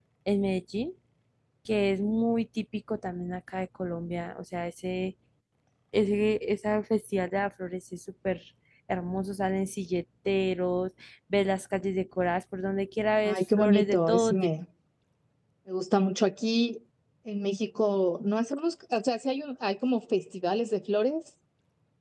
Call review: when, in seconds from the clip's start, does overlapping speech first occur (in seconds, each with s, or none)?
13.2 s